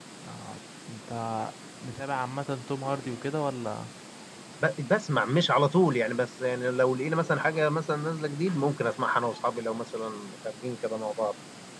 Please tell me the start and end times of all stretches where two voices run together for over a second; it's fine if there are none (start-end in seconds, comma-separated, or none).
none